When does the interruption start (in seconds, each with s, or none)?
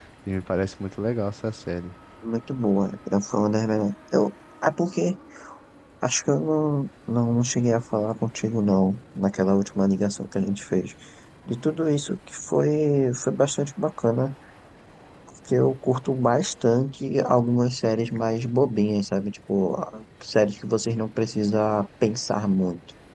none